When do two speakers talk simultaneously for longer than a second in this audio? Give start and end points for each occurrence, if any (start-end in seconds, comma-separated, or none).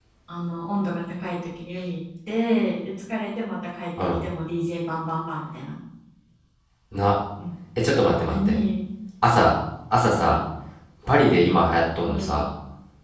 none